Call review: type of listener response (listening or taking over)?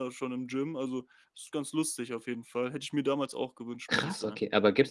taking over